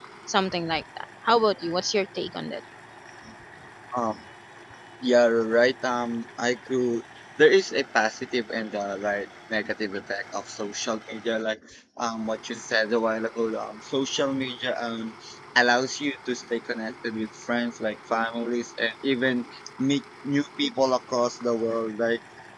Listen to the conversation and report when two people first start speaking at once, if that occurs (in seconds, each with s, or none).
none